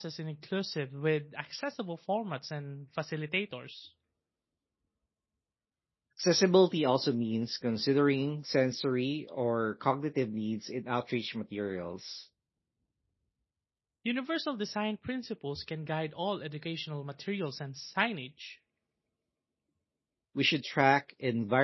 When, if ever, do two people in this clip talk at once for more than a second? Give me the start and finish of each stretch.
none

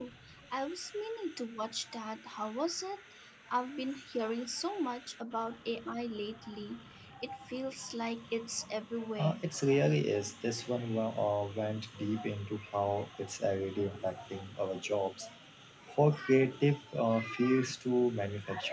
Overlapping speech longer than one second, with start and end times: none

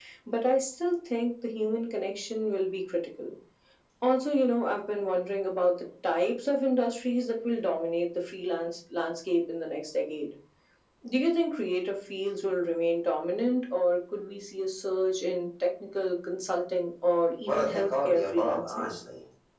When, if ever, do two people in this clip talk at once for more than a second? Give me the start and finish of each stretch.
17.5-19.0

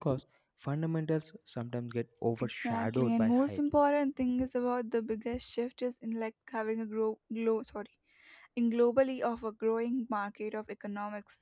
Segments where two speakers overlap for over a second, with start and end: 2.4-3.6

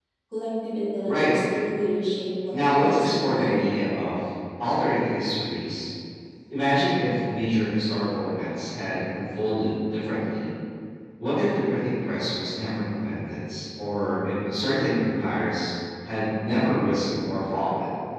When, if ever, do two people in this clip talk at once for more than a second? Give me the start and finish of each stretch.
2.5-3.8

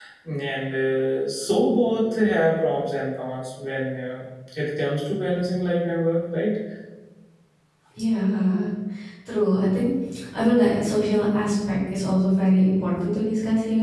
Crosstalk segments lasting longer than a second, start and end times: none

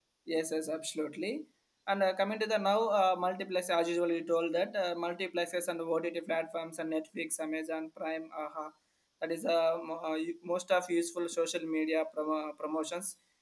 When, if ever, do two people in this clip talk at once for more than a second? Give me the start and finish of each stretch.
none

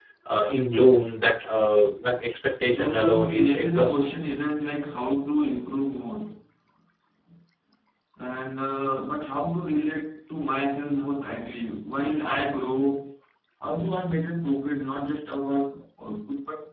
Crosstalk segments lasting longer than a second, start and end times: 2.6-4.1

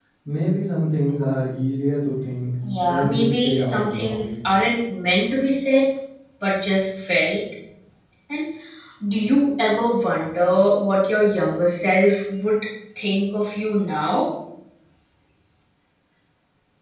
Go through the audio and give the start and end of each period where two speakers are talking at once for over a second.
2.8-4.3

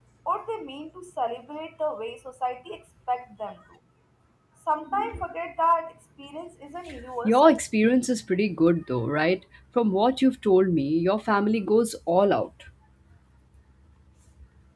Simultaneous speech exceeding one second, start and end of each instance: none

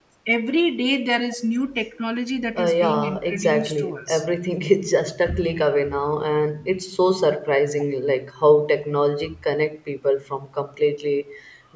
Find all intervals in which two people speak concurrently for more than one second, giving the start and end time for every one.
2.6-4.2

